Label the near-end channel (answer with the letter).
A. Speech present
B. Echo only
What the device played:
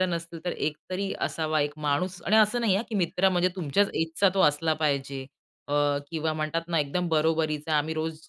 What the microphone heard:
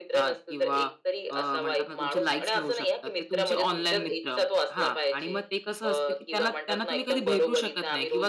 A